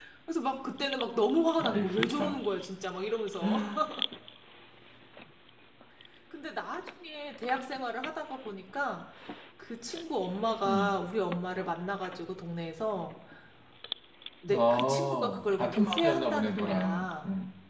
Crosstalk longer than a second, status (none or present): present